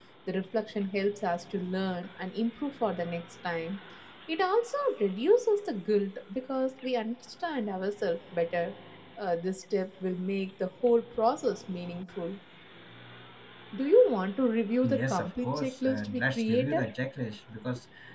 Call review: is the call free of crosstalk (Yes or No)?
No